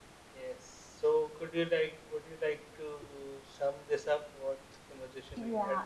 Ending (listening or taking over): taking over